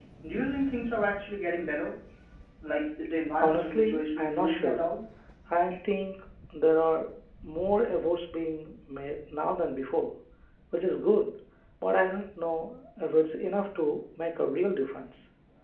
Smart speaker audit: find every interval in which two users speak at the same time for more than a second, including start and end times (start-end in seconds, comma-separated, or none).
3.4-4.8